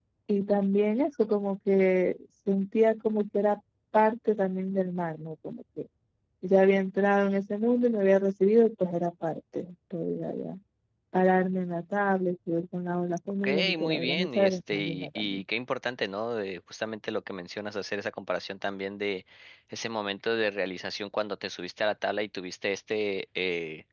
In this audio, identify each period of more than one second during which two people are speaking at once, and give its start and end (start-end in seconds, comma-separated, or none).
13.4-15.4